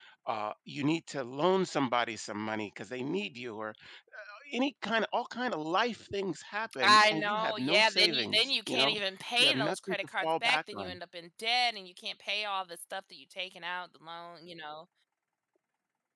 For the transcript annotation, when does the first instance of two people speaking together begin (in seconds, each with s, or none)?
6.8 s